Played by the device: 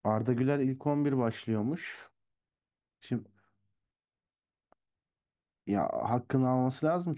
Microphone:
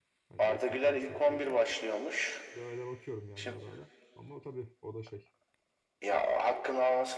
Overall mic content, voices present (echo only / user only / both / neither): both